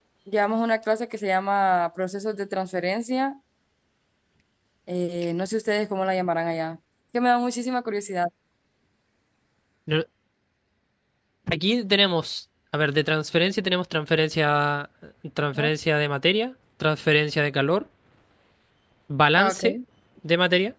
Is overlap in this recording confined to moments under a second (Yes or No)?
Yes